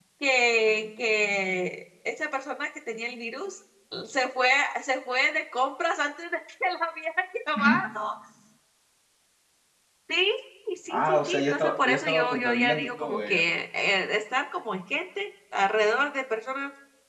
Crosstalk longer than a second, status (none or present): present